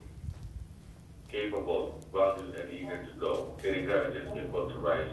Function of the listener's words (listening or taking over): listening